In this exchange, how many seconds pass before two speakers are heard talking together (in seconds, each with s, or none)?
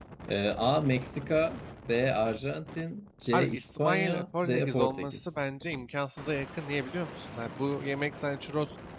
3.3 s